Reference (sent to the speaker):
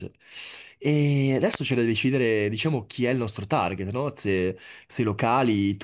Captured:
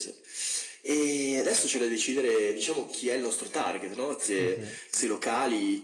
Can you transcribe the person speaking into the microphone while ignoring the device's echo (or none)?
Sì, sì.